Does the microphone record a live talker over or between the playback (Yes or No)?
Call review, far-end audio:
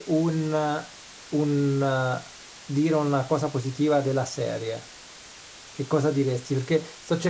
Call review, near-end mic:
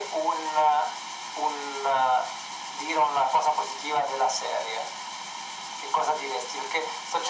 No